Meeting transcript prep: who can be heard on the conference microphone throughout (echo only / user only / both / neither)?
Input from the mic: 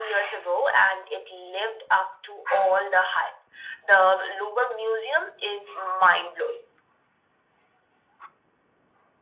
echo only